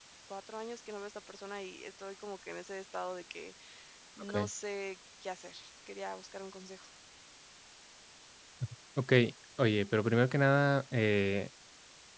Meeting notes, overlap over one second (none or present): none